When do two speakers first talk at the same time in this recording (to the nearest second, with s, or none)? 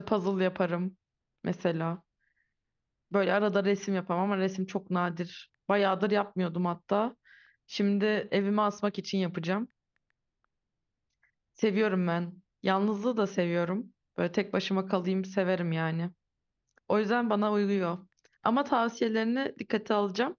none